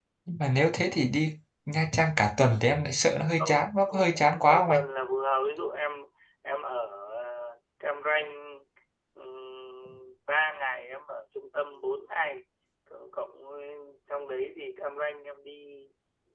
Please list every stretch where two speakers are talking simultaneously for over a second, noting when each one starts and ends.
3.4-4.7

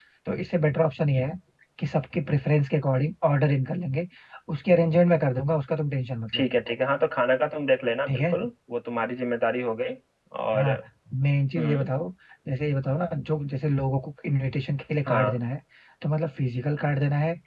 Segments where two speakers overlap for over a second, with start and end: none

